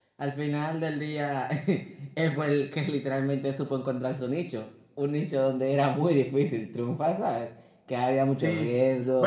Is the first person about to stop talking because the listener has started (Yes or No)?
Yes